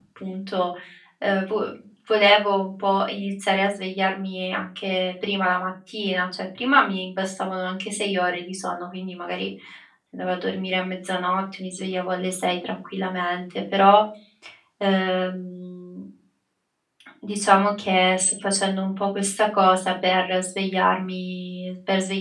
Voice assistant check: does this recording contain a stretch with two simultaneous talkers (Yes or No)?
No